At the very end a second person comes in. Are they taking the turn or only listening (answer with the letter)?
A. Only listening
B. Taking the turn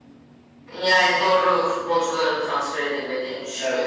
B